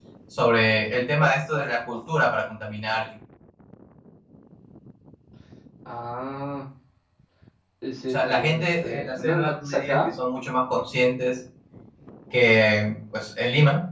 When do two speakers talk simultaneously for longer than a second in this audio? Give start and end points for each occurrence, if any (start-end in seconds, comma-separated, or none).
8.1-10.0